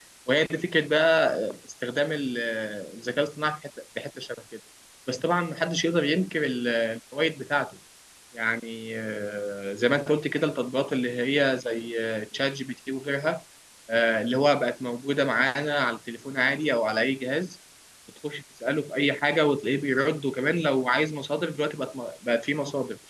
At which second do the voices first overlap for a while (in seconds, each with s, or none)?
none